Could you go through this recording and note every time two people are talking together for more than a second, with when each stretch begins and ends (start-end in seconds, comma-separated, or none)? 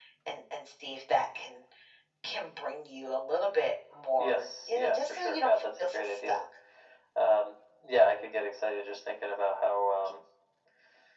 4.2-6.4